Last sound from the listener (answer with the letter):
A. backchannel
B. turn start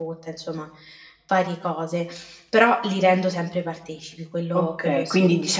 B